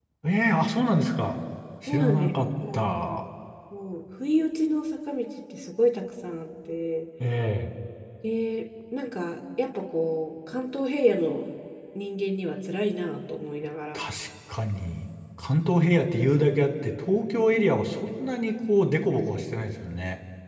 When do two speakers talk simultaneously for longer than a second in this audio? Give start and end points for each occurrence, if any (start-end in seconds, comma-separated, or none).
1.9-3.2